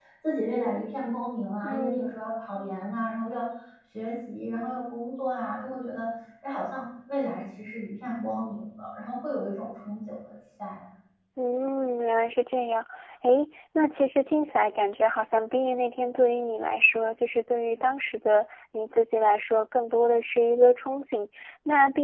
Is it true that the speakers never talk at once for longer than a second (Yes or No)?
Yes